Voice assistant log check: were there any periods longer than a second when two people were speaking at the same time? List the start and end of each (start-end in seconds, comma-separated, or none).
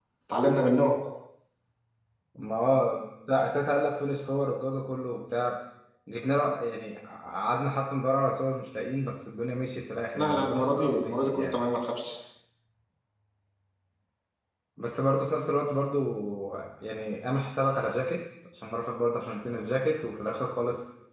10.2-11.6